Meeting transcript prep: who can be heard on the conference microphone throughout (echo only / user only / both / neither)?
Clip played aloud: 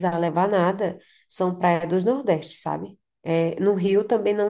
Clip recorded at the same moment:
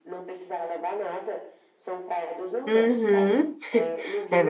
both